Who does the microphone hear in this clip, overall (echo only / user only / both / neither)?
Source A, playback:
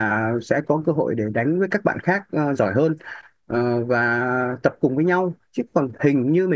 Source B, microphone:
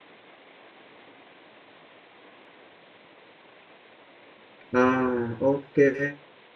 user only